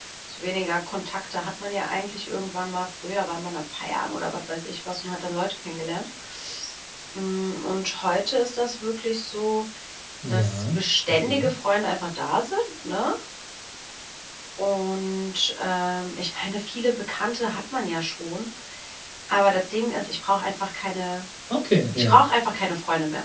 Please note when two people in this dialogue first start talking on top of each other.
10 s

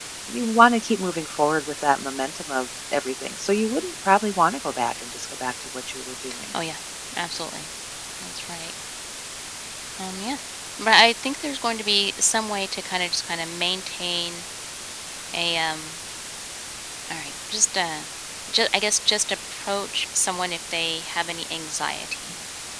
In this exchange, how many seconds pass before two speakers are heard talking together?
none

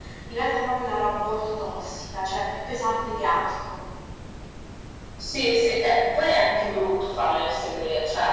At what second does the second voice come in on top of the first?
none

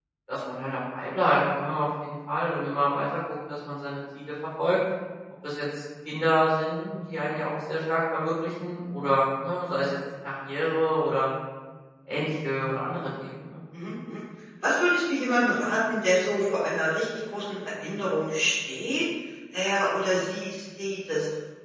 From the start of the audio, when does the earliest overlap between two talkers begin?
none

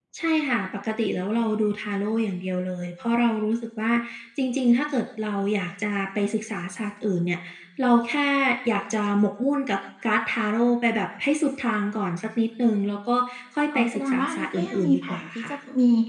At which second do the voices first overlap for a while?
14 s

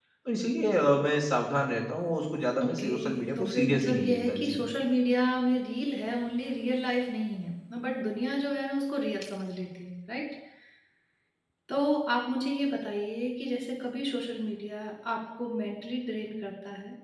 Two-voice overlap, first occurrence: 3 s

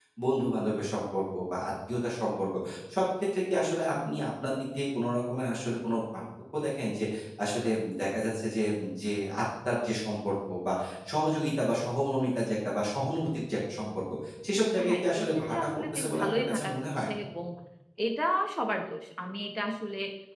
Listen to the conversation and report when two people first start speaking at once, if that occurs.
15 s

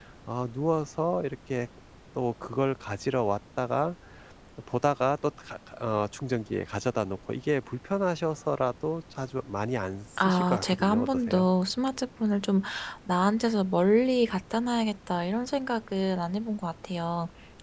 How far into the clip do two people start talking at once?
10 s

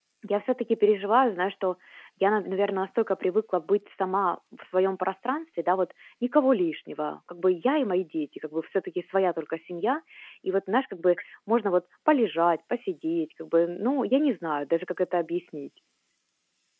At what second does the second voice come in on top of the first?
none

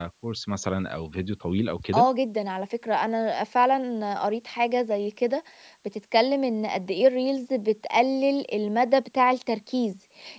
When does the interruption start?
none

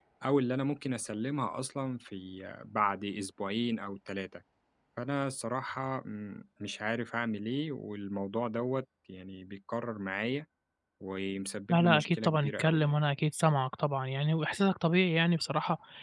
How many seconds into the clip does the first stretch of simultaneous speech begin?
12 s

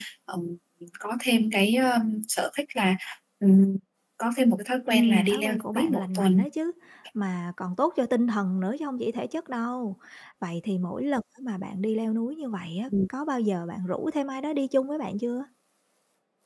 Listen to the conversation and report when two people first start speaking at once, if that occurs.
5 s

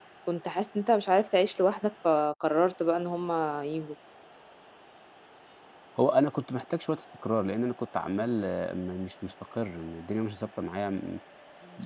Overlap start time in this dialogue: none

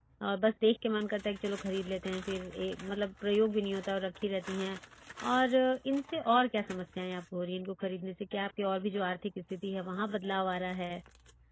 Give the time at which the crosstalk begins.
none

